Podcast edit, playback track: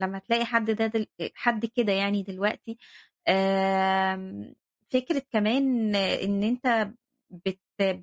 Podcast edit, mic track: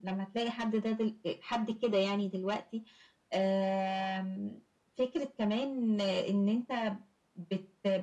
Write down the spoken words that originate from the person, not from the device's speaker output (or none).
none